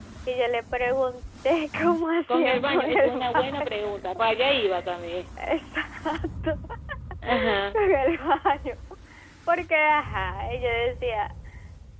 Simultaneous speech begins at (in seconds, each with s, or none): 2.3 s